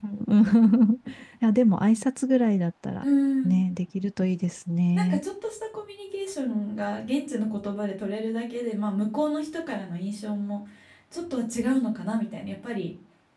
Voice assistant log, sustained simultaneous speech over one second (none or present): none